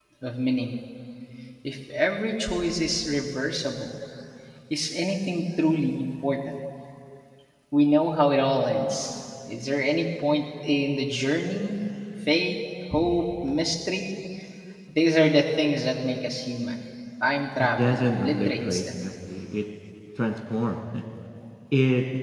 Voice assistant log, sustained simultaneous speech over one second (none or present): present